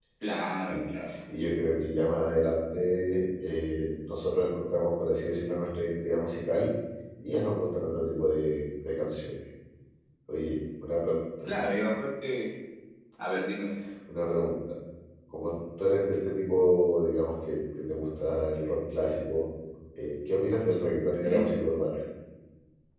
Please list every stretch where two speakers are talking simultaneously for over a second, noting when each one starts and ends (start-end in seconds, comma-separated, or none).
none